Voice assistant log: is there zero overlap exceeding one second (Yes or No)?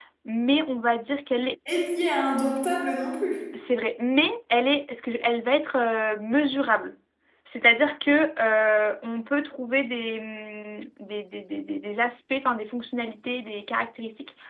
Yes